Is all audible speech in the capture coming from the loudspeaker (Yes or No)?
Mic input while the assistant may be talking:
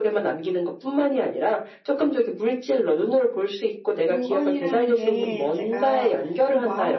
No